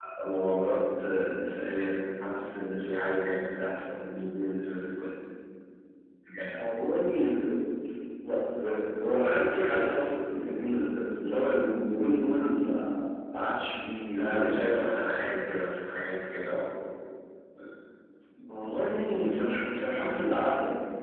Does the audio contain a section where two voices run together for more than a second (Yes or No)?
No